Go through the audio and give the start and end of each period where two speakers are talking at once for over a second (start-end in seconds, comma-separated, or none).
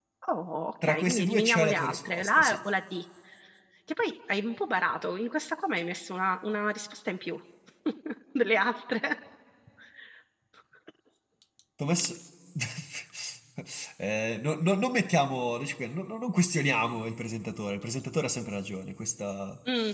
0.8-2.6